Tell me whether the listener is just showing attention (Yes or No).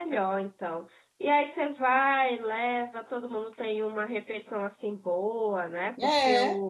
Yes